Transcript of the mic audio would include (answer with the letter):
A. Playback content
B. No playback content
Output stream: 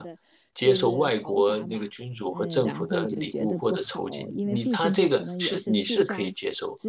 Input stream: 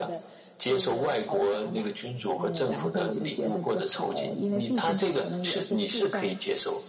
A